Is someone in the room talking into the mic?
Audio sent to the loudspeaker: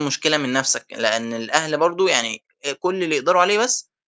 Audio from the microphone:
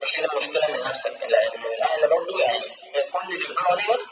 No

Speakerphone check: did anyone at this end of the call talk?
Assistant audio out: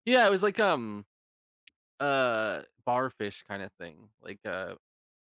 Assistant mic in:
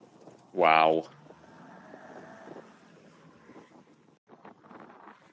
Yes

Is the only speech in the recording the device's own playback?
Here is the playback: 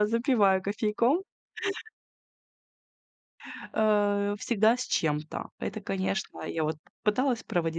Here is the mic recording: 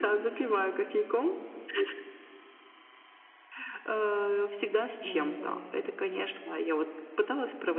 No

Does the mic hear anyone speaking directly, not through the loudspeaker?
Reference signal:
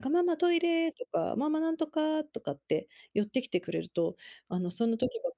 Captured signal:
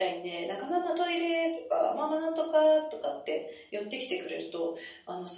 No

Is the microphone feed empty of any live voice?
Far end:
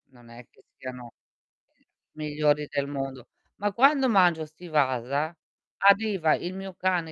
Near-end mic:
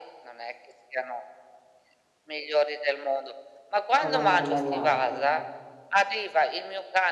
No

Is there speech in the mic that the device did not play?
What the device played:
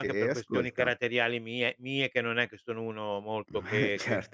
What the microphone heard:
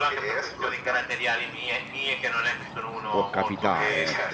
Yes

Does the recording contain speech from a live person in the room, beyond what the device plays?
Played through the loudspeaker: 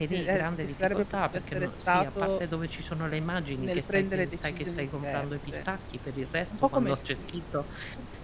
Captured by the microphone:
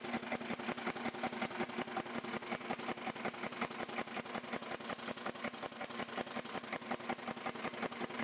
No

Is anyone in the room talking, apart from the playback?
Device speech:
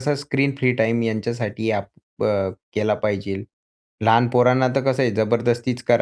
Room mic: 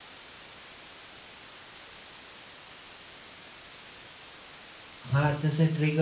Yes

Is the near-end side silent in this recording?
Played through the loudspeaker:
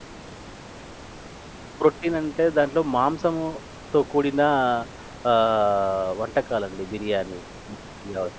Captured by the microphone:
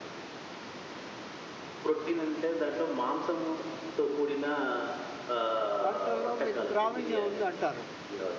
No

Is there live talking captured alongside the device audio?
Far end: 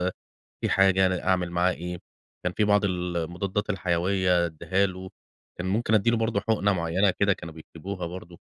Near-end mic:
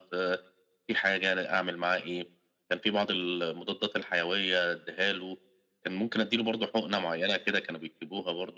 No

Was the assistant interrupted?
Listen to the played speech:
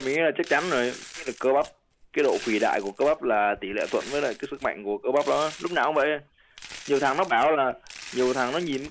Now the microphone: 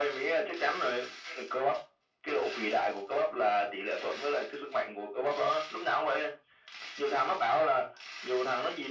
No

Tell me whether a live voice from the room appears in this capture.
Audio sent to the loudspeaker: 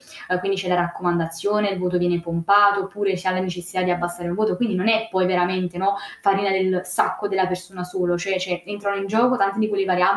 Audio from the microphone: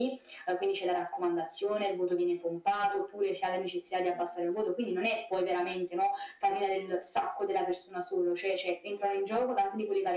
No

